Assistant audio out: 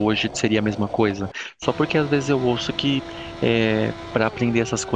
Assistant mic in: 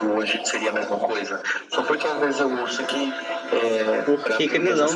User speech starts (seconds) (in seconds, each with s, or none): 4.0 s